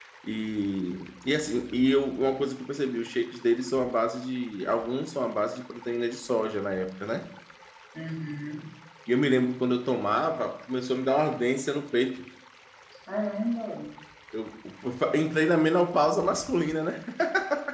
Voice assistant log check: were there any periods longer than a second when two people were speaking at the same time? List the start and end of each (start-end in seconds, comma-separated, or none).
none